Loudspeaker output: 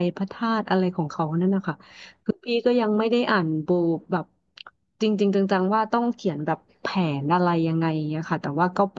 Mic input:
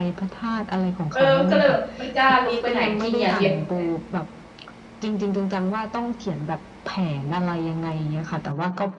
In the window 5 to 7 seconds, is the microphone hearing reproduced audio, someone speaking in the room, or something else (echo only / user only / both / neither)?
echo only